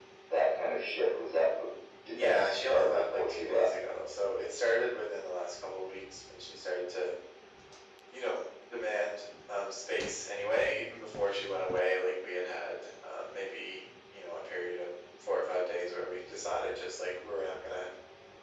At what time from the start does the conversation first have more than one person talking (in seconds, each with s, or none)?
2.1 s